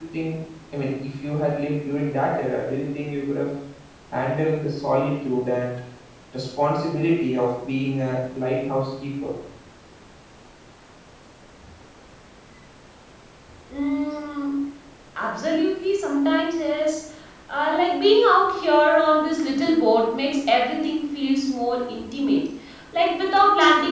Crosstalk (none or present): none